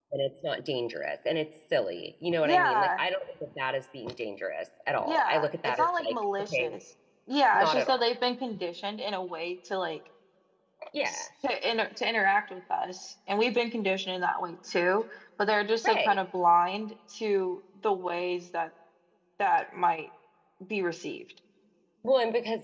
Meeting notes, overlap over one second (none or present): present